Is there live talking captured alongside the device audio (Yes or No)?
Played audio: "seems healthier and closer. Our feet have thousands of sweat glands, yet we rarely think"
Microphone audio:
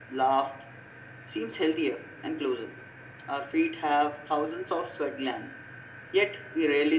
No